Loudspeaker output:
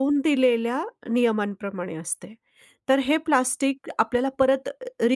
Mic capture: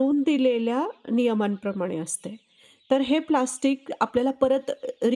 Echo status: present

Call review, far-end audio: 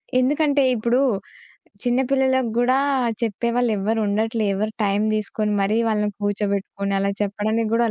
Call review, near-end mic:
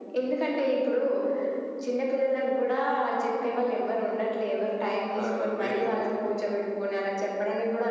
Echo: present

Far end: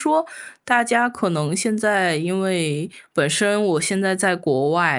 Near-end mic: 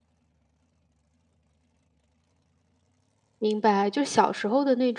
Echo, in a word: none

